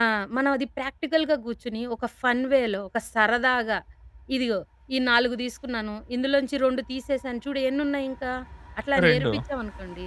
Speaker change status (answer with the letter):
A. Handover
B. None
B